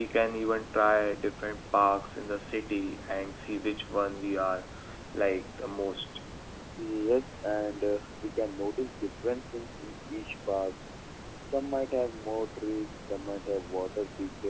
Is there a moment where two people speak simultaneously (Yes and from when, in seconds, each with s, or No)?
No